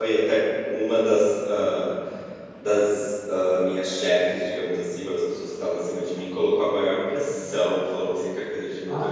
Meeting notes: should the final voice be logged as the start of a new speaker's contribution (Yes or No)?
No